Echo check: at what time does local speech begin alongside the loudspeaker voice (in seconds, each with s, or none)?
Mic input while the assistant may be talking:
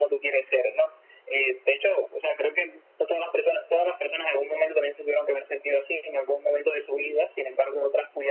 none